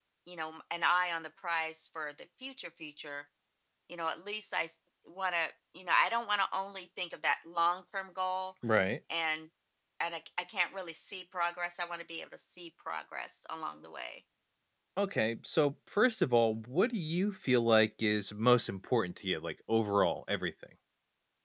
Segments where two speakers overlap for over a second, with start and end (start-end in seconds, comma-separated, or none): none